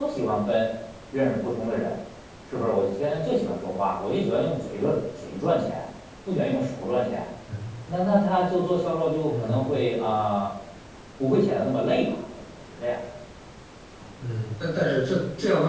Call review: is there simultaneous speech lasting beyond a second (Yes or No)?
No